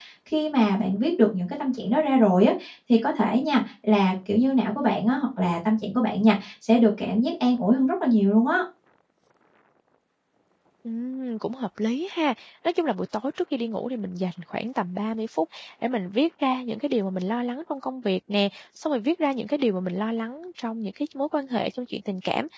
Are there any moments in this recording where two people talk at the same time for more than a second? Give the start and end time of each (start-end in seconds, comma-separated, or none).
none